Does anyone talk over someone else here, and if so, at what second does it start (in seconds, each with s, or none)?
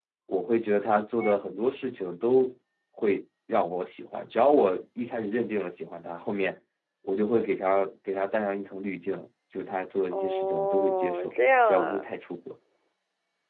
10.1 s